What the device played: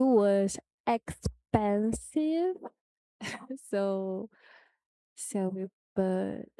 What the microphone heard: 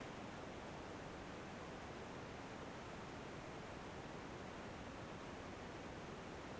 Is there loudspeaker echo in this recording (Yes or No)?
No